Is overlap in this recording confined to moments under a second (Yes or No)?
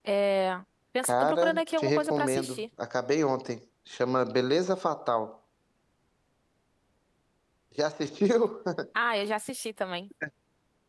No